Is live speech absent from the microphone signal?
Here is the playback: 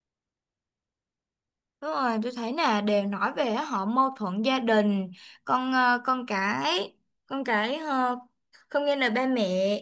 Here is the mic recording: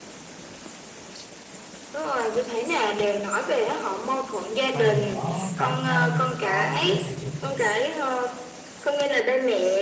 No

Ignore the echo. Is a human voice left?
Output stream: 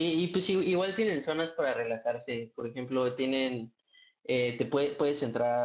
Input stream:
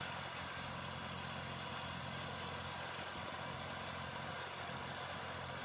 No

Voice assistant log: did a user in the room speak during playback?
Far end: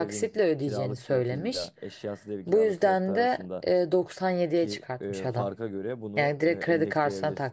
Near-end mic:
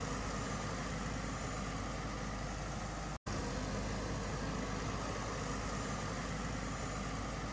No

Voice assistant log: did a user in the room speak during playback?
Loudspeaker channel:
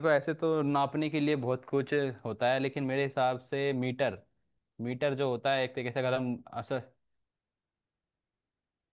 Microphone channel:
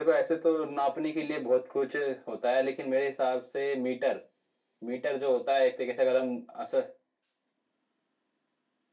No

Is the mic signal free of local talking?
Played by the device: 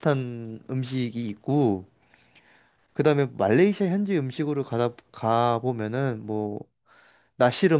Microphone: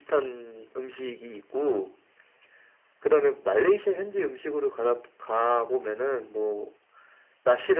Yes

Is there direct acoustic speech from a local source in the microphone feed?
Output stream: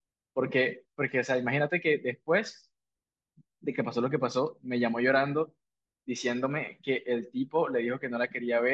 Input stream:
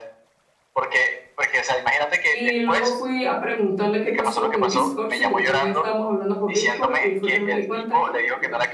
Yes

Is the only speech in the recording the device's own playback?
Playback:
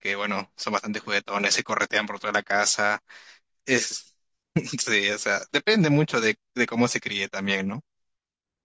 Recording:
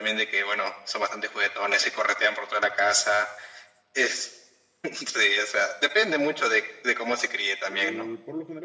No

